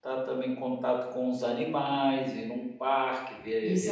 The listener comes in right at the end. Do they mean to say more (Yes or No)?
Yes